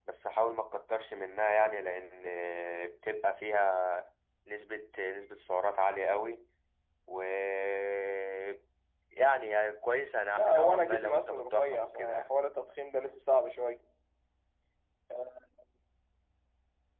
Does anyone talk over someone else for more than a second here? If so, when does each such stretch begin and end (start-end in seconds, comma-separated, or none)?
10.4-12.3